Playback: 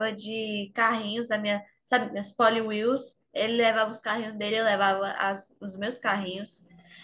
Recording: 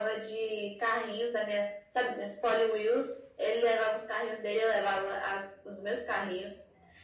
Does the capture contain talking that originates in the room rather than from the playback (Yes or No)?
No